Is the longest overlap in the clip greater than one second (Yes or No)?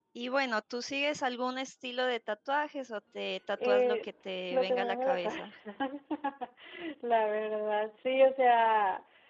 Yes